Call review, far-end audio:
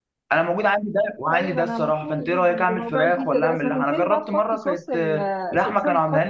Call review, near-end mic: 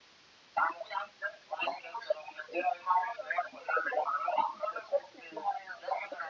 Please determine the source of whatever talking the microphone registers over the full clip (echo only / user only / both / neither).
echo only